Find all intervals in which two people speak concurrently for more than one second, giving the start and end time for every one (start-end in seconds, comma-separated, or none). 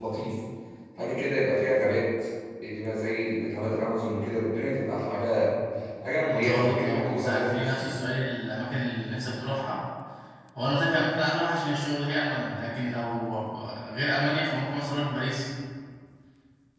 6.3-7.9